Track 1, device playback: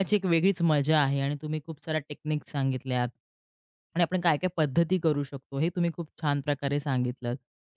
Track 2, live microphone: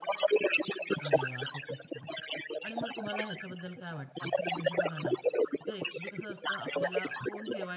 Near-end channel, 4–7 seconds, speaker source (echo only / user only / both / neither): both